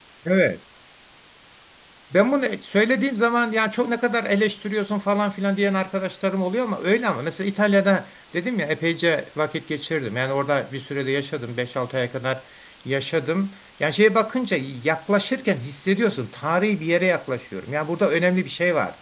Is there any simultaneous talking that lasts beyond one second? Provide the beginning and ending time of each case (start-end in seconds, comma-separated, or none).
none